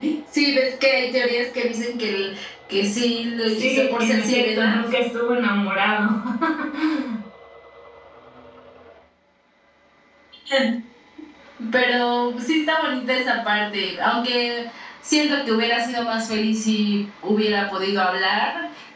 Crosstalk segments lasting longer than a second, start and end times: 3.5-4.8

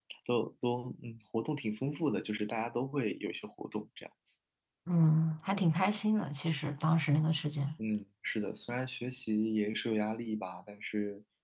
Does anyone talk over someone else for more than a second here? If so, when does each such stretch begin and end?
none

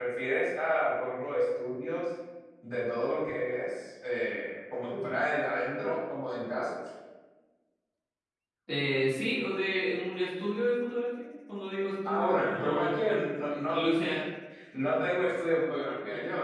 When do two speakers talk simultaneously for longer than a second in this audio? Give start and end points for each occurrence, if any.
12.1-13.8

